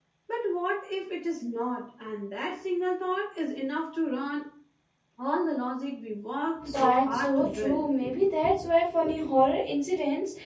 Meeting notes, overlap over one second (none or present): present